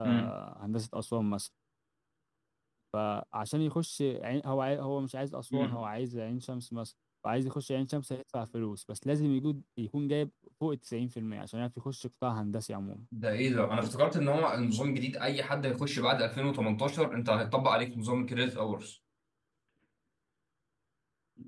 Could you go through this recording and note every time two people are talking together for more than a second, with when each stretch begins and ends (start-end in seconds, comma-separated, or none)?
none